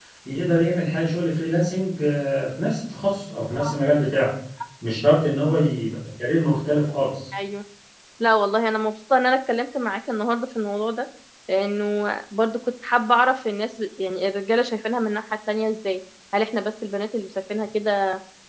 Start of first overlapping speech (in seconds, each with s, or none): none